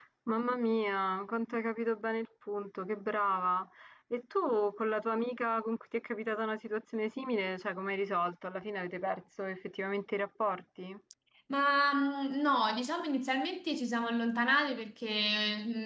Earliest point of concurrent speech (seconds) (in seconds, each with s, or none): none